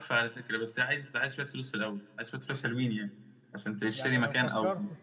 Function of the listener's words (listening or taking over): taking over